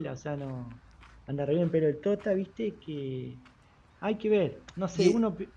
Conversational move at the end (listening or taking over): taking over